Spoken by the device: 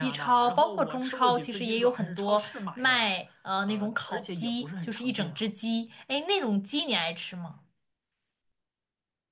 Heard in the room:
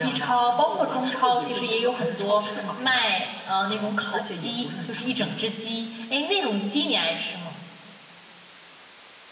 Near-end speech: none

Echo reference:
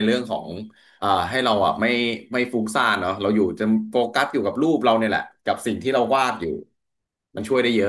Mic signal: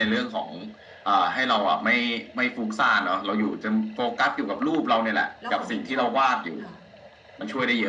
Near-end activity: present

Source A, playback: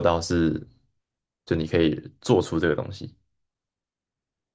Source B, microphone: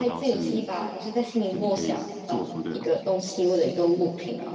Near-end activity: present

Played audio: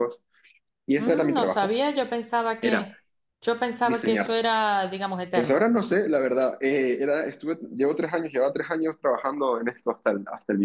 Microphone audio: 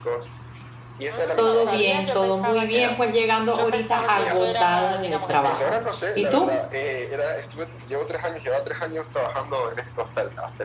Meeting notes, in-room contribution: present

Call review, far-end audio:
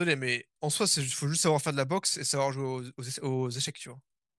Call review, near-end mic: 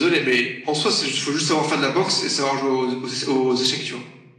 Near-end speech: none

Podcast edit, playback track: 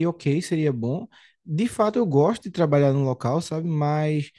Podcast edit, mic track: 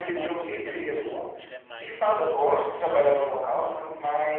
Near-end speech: present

